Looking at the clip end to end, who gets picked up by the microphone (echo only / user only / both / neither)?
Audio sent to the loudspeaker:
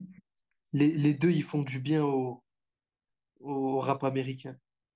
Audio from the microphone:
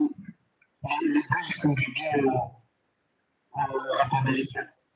echo only